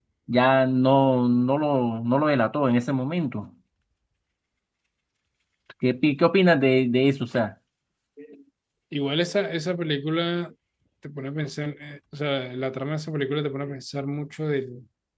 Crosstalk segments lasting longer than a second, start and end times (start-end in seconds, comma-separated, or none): none